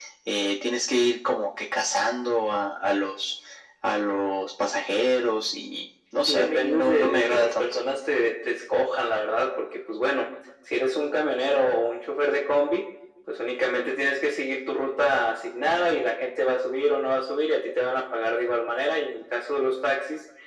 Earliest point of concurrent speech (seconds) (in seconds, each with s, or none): 6.3 s